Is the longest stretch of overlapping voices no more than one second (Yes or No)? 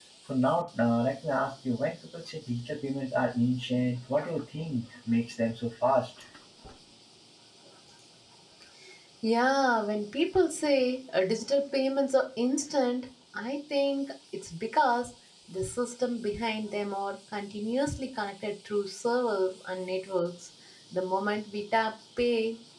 Yes